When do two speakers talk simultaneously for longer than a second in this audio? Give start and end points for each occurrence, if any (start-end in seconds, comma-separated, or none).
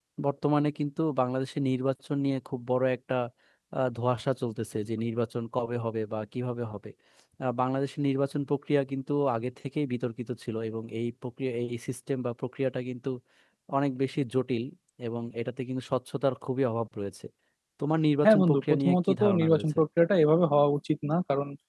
18.2-19.8